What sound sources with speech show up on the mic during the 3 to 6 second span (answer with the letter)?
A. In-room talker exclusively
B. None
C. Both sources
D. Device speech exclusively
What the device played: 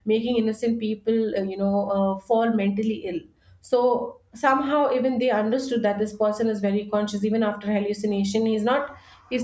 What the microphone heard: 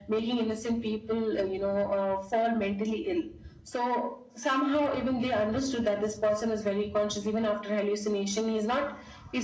D